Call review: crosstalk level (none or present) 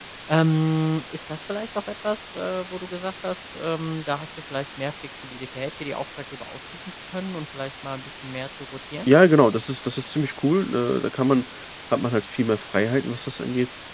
none